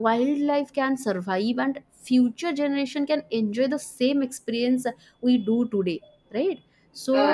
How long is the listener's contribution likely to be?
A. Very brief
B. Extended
A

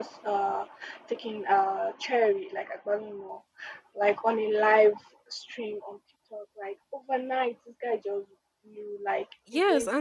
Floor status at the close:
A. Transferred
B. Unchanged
A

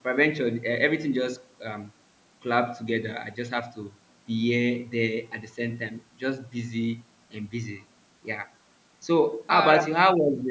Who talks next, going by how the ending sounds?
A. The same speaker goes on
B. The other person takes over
A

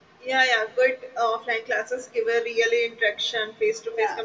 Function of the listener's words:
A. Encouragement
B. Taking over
A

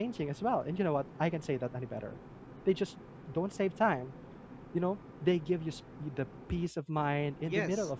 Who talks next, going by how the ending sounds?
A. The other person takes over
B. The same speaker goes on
A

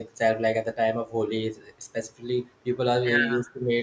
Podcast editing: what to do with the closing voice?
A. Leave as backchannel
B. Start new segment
A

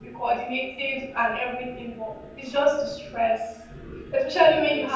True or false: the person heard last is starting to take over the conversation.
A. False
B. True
A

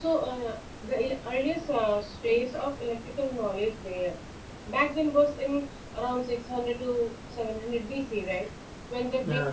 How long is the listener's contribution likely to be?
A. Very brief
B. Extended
A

